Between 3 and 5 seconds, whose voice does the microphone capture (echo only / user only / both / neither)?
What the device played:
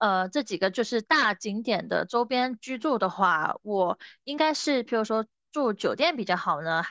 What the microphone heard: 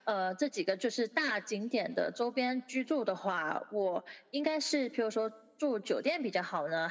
echo only